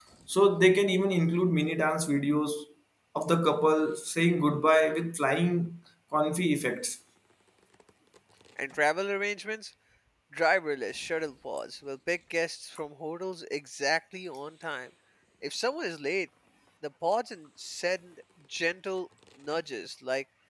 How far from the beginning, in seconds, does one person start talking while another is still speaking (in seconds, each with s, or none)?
none